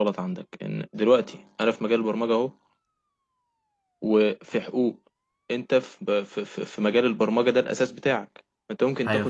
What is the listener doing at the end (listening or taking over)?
listening